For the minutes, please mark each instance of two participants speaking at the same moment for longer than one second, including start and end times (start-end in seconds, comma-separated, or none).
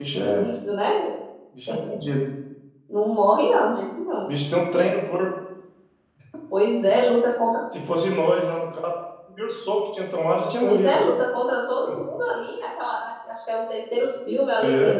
none